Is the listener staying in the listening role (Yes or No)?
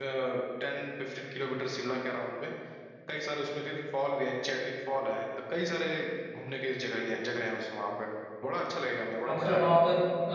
No